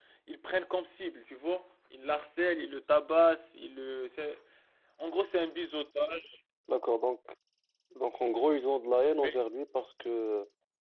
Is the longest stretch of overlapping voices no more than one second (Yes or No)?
Yes